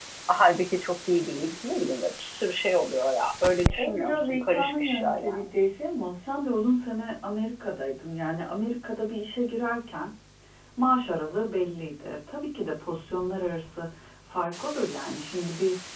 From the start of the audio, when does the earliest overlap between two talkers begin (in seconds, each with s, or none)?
3.6 s